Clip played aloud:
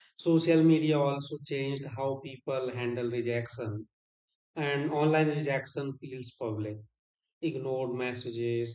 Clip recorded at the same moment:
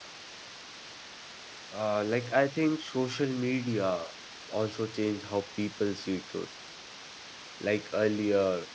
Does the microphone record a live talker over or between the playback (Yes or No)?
Yes